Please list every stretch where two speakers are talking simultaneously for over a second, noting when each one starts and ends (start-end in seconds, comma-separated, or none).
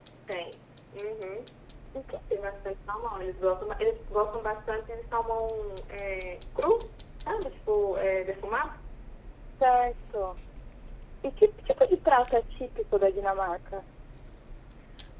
none